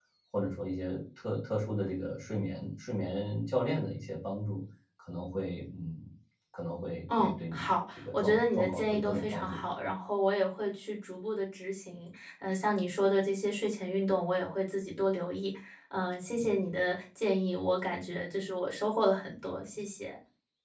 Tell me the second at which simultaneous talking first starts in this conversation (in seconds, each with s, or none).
7.1 s